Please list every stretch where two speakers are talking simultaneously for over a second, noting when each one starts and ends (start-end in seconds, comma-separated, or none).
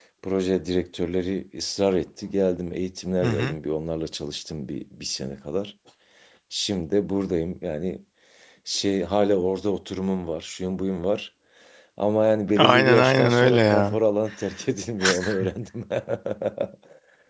12.6-14.0